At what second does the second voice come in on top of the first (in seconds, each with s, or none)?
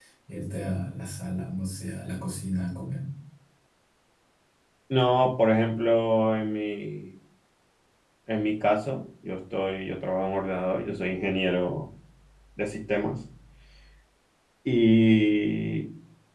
none